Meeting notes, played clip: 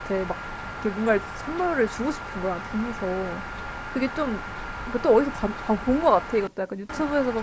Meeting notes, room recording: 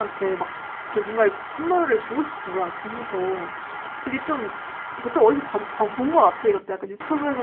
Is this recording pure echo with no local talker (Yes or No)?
Yes